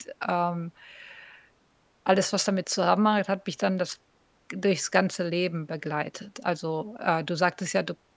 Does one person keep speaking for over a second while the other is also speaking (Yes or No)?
No